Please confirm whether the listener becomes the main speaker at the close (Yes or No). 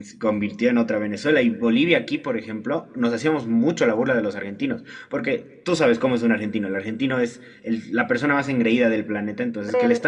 No